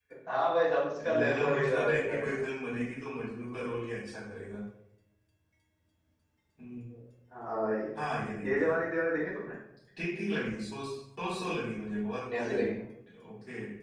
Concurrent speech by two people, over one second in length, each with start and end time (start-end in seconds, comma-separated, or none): 1.1-2.4